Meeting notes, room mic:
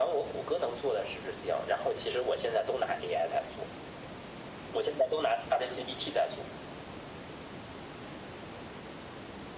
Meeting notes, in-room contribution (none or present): none